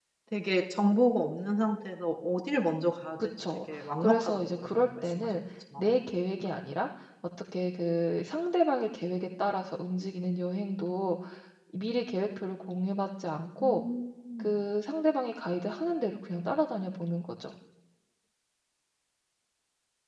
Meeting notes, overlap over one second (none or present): present